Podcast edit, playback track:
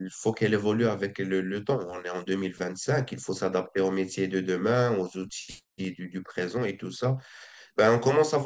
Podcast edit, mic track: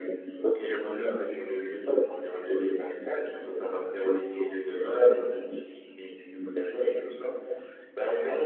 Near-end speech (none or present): none